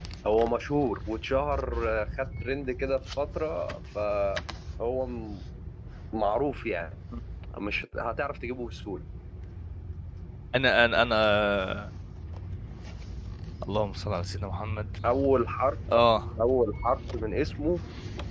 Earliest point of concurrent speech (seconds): none

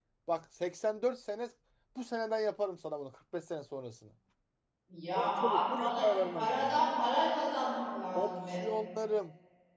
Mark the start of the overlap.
5.1 s

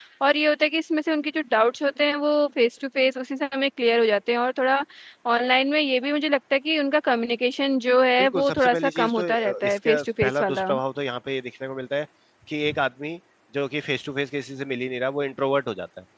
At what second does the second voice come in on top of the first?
8.2 s

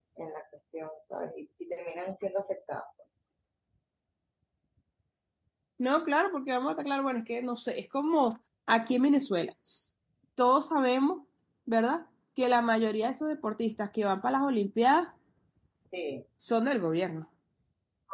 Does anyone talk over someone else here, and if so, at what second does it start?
none

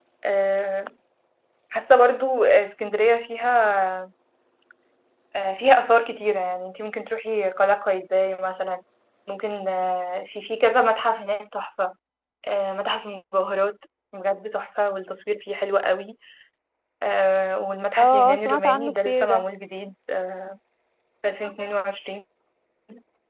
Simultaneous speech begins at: 18.0 s

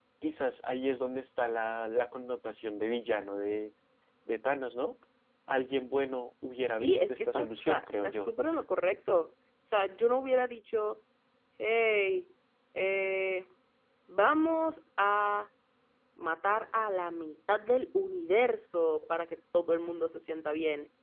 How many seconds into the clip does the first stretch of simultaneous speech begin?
6.8 s

